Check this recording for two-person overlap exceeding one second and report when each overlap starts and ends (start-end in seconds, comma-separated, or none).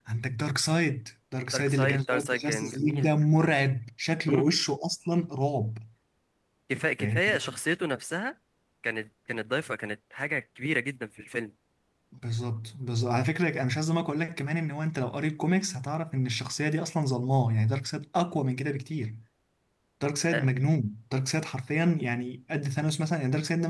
1.5-3.1